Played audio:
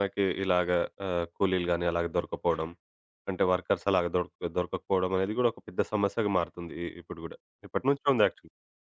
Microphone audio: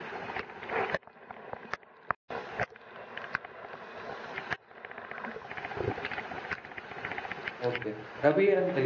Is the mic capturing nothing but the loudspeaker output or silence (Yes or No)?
No